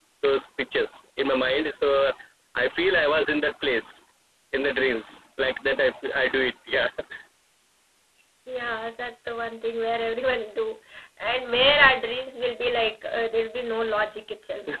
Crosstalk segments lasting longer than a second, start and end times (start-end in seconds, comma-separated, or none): none